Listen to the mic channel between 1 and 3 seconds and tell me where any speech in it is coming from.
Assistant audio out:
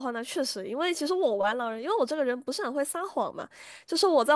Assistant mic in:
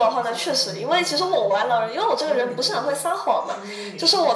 both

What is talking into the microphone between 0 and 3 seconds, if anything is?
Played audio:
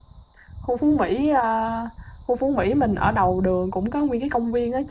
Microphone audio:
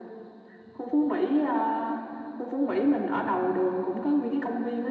echo only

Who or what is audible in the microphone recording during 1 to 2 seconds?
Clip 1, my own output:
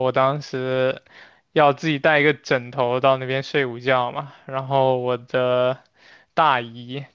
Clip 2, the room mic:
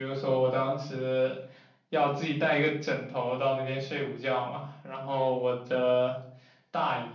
echo only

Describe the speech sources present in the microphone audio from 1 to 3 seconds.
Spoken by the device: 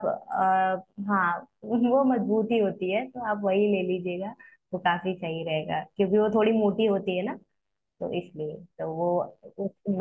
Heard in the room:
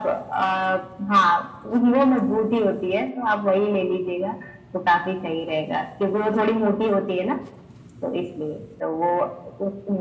echo only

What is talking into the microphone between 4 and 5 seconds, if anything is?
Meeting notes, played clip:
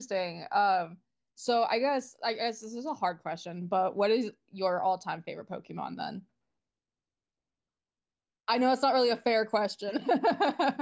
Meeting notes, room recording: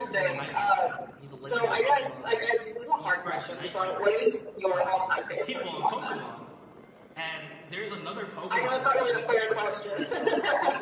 both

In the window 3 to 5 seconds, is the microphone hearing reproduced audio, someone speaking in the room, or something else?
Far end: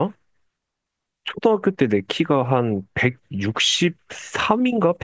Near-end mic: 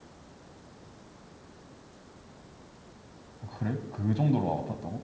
user only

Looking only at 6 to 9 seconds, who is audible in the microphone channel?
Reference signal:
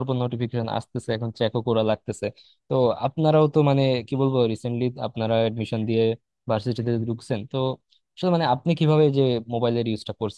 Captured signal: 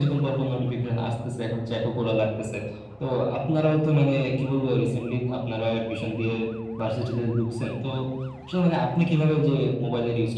echo only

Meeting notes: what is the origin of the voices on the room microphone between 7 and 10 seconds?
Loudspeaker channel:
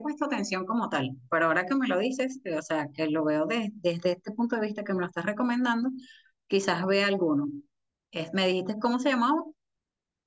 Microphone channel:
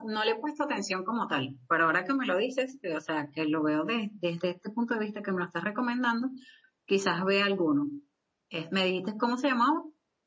echo only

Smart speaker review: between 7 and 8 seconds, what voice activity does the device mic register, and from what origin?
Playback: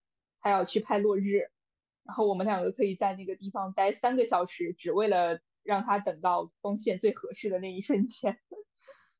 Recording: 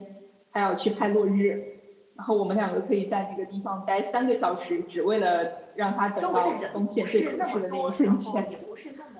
both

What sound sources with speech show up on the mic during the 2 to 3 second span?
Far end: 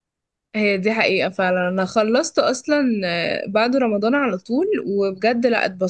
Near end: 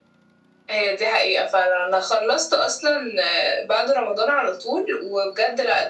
echo only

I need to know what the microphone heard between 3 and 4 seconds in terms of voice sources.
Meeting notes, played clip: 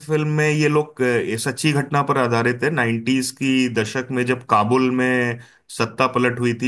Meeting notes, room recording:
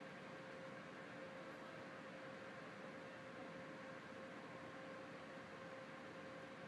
neither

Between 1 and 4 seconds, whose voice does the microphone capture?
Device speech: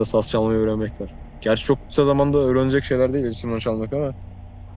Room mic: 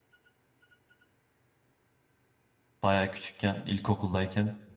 user only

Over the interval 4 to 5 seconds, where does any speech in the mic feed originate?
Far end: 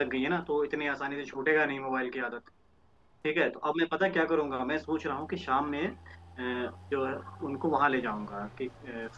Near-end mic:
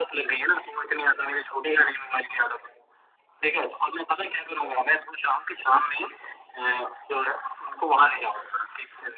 echo only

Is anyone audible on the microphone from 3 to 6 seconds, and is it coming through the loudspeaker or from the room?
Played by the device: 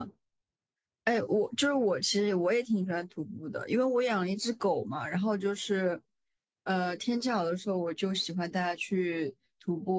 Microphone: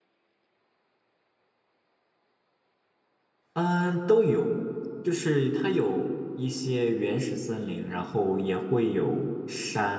user only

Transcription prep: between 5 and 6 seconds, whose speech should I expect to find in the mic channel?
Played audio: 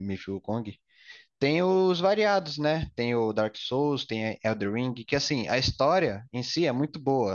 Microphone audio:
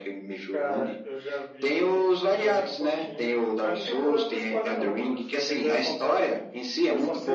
both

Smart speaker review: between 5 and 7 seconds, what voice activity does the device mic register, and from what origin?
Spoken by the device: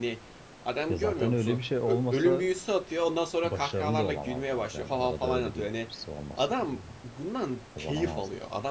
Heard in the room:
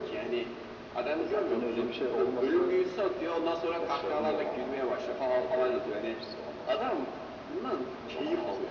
echo only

